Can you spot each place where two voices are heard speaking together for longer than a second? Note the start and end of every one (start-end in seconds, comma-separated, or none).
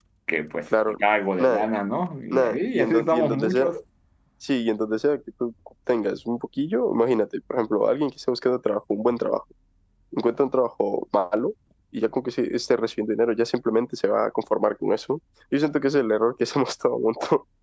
2.3-3.7